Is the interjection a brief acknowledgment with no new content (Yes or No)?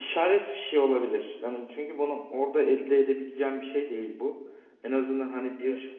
Yes